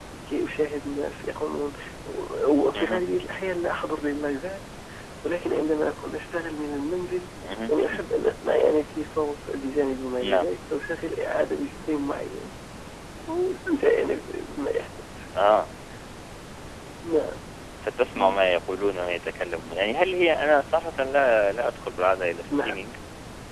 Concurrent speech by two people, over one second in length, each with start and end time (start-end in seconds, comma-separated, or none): none